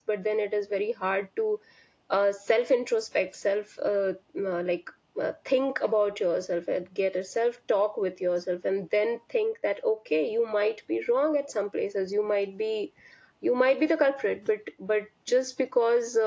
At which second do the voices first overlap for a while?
none

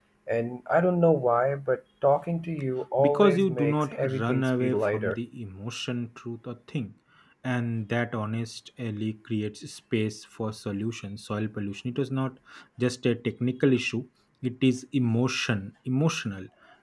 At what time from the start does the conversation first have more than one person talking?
3.0 s

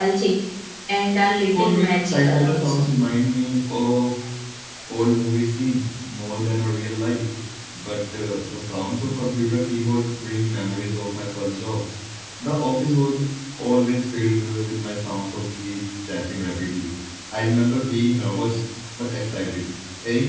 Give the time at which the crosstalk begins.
1.5 s

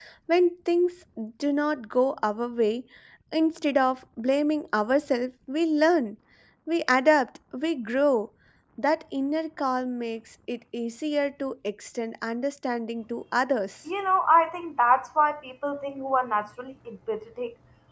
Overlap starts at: none

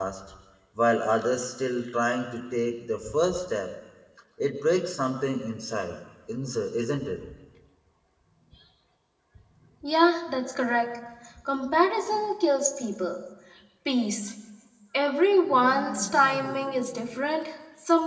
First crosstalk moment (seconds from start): none

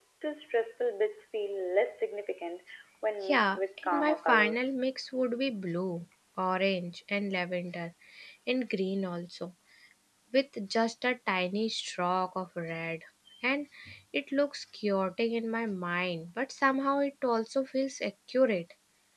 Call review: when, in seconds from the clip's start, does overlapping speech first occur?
3.2 s

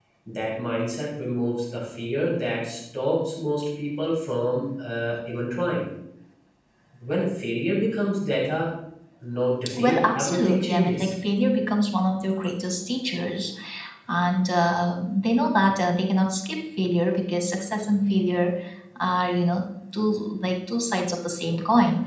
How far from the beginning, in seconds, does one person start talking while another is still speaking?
9.8 s

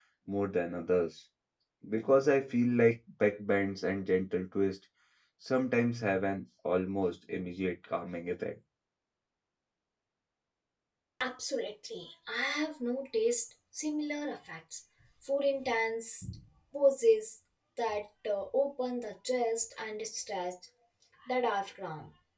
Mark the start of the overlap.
none

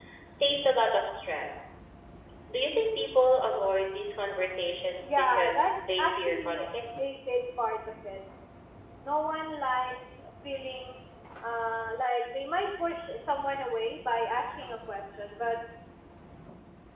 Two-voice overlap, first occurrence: 5.0 s

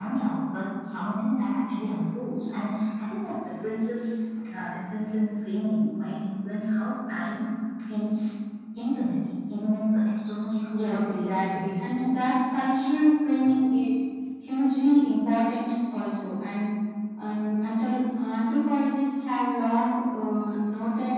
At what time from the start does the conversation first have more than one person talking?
10.7 s

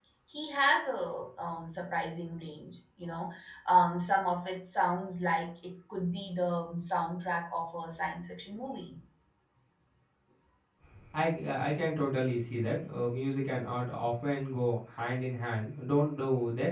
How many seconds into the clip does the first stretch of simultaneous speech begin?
none

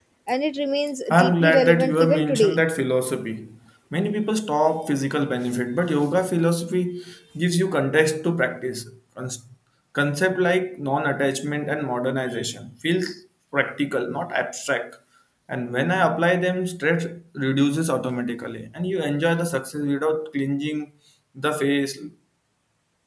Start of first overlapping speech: 1.1 s

